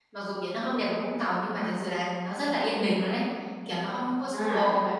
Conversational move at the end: taking over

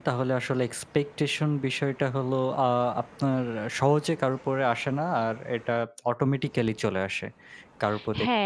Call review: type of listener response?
taking over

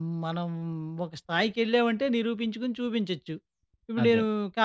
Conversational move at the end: listening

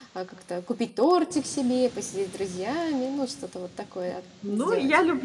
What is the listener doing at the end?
taking over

